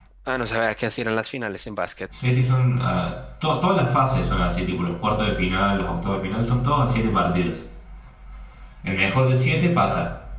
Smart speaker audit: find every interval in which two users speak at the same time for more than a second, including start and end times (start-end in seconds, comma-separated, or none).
none